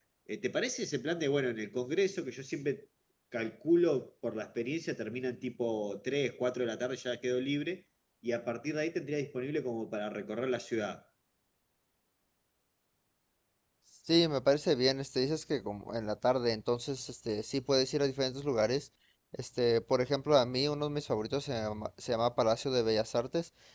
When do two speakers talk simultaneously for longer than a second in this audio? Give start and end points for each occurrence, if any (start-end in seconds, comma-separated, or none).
none